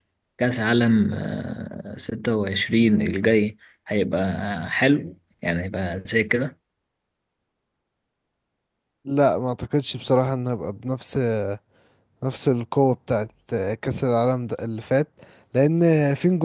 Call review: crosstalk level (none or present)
none